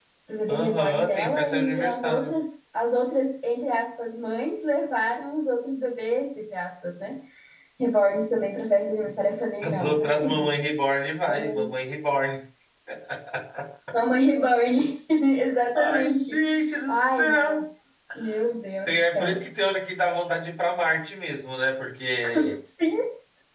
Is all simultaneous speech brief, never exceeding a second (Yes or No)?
No